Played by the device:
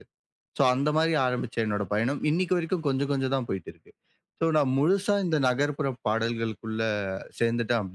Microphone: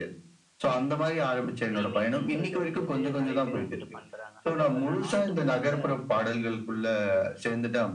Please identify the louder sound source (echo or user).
echo